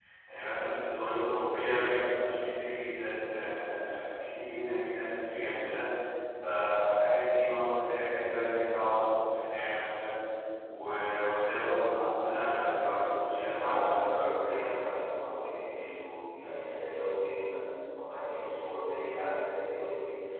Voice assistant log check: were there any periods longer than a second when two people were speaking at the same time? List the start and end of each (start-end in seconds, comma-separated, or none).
13.4-14.6